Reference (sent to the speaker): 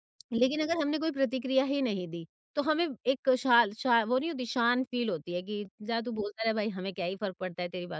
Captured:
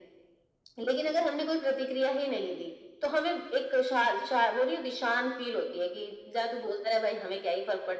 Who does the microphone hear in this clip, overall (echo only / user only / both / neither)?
echo only